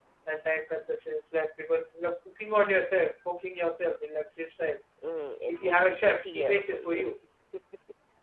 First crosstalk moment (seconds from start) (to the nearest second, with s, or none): 5 s